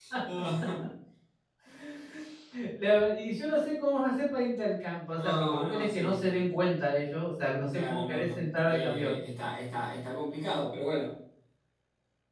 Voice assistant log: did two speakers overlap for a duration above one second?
Yes, from 5.2 s

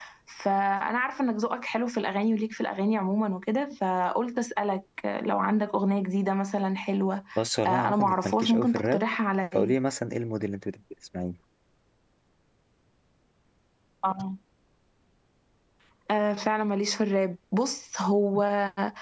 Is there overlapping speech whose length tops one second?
Yes, from 7.7 s

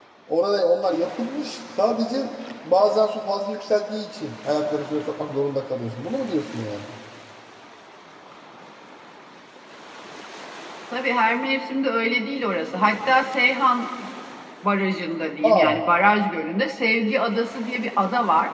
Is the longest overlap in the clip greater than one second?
No

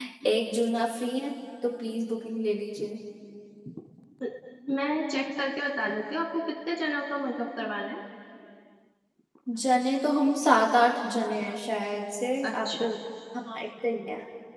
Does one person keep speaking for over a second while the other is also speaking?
No

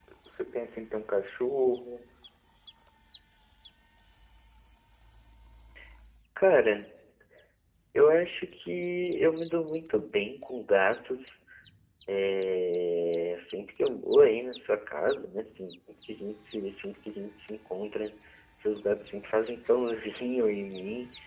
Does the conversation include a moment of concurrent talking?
No

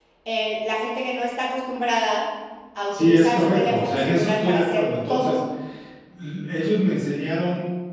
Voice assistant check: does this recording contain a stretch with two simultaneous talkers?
Yes, from 2.9 s

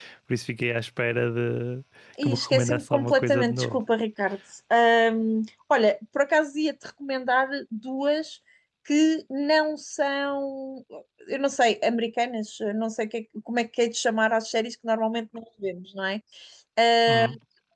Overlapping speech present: Yes, from 2.2 s

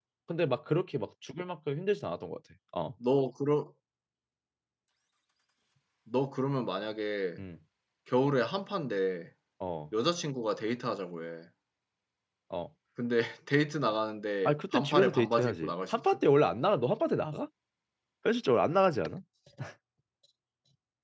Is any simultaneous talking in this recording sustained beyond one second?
Yes, from 14.4 s

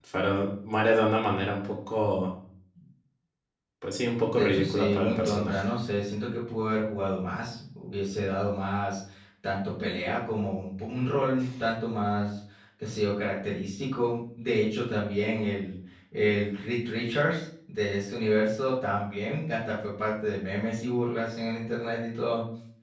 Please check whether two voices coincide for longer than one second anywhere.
Yes, from 4.3 s

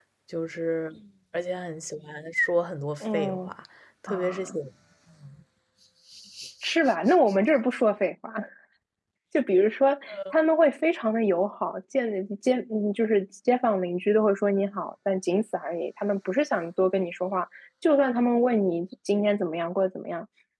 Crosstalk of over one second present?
No

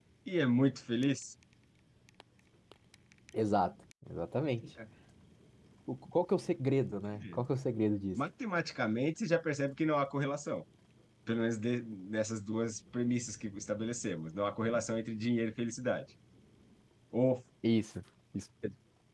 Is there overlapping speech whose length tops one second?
No

